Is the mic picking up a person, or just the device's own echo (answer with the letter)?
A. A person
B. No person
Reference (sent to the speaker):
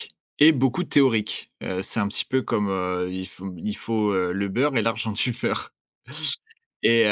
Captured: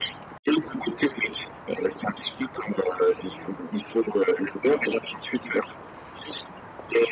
B